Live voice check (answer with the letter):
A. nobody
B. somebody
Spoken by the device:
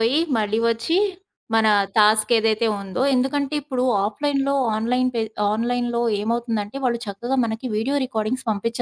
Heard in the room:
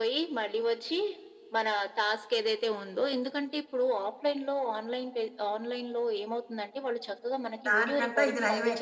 B